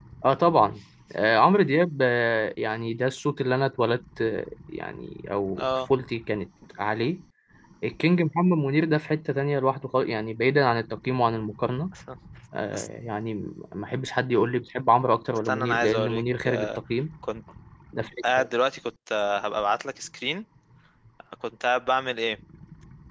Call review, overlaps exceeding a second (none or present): present